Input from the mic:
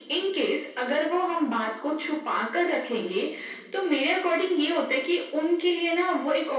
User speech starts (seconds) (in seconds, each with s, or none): none